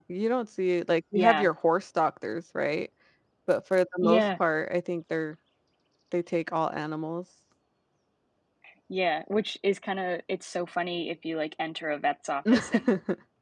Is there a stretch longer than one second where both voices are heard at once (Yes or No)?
No